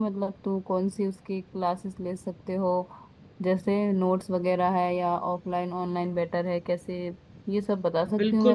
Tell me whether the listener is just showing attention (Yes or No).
No